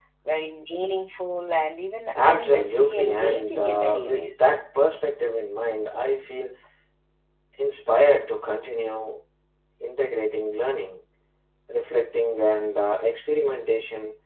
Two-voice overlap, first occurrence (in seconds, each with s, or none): 2.2 s